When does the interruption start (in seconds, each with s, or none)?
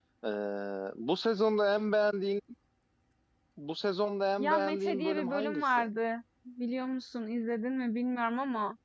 4.4 s